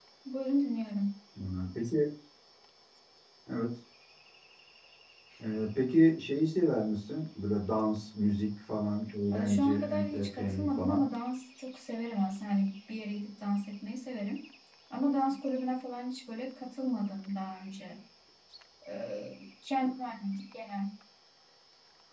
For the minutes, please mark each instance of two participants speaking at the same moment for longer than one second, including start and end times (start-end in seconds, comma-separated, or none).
9.3-11.0